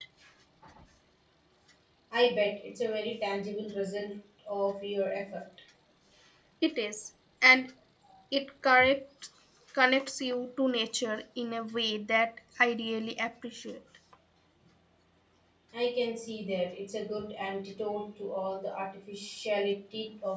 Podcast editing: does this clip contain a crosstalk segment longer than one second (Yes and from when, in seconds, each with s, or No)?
No